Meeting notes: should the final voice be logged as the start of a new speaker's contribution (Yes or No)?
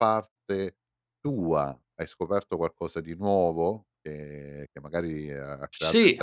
Yes